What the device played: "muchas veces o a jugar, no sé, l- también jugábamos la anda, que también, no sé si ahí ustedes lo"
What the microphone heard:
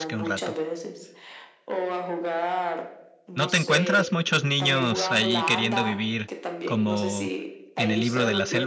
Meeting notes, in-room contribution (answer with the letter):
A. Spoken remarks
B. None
A